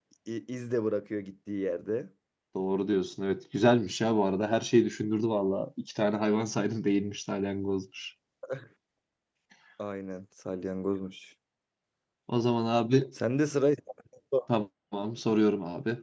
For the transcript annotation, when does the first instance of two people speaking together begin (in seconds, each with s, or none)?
none